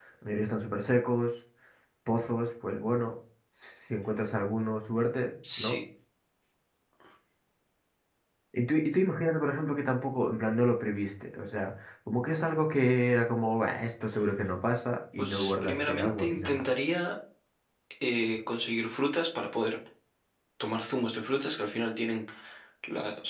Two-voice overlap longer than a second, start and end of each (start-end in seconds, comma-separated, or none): 15.2-16.6